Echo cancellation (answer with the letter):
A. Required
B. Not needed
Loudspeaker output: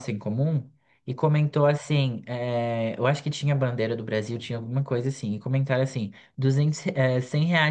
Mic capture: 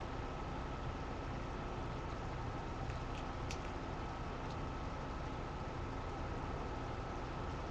B